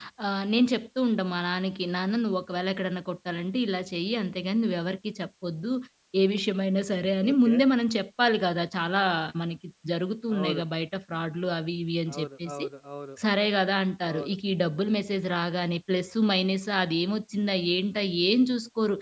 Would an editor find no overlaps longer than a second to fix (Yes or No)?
Yes